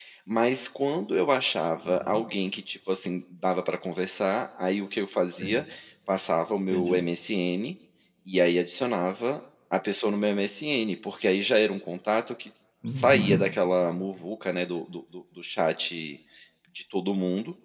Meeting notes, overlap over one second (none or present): none